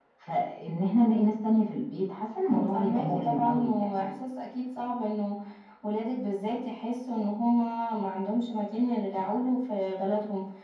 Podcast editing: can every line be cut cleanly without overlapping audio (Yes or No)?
No